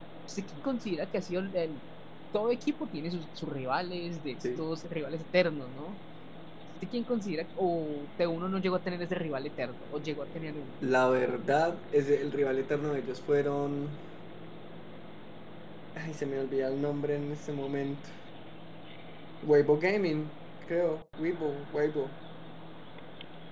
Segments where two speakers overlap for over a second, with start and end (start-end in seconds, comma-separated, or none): none